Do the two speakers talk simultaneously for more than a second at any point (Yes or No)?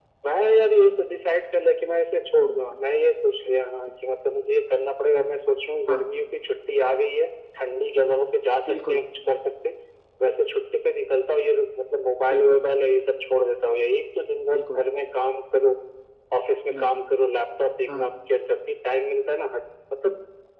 No